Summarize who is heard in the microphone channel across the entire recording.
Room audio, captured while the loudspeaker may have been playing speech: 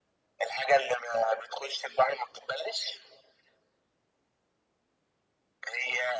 echo only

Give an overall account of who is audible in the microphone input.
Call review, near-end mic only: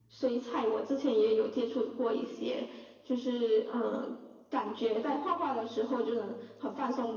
echo only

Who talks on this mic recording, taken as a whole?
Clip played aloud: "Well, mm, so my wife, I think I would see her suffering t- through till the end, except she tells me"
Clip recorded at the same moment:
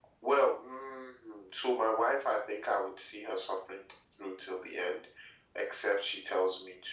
echo only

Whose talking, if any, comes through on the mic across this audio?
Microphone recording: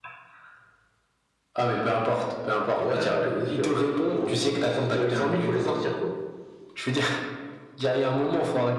echo only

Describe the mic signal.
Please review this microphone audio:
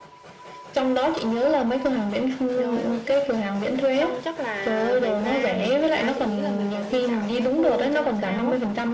both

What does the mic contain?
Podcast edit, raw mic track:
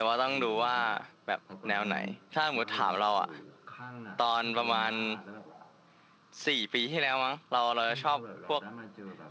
both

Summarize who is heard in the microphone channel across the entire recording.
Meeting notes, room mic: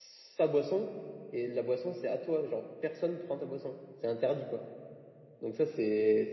user only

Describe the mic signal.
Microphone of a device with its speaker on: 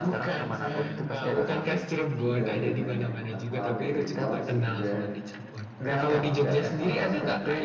both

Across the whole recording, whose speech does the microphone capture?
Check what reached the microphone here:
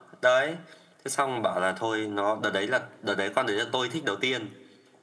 echo only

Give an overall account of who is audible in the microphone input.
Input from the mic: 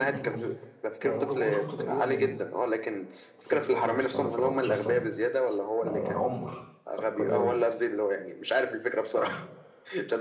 both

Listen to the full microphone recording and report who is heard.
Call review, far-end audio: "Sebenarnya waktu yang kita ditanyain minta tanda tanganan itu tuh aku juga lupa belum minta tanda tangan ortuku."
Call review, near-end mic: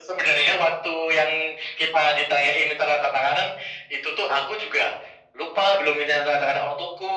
echo only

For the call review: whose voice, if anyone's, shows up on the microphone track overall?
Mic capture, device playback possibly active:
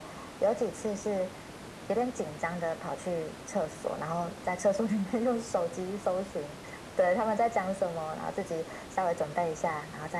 echo only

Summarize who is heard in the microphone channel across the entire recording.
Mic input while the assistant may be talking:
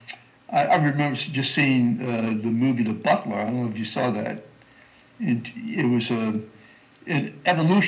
echo only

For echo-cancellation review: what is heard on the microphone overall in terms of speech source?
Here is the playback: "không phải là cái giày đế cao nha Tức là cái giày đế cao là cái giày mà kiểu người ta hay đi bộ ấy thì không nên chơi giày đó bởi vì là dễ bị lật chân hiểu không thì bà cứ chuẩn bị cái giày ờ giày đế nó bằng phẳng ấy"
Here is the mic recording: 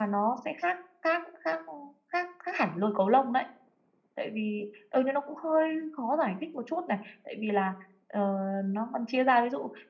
user only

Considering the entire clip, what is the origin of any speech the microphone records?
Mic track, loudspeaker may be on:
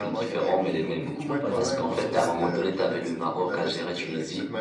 both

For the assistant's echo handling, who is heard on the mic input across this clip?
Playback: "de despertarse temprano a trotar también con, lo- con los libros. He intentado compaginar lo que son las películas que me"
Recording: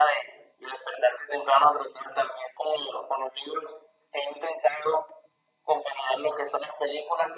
echo only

